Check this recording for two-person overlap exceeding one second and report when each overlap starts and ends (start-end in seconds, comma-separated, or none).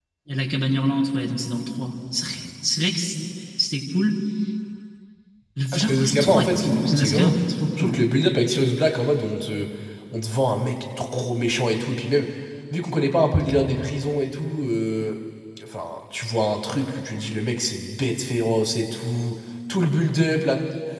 5.7-7.3